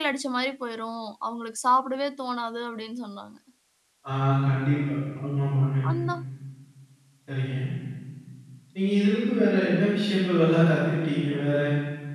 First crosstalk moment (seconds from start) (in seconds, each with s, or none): none